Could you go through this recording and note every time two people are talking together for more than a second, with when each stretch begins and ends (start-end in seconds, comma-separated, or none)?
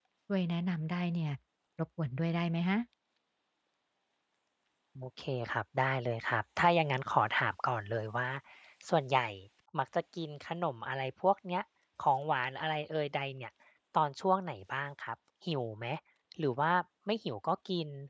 none